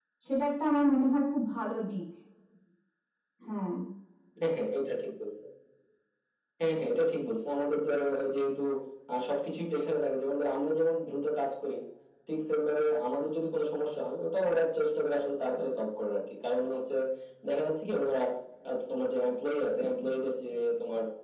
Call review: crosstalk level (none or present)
none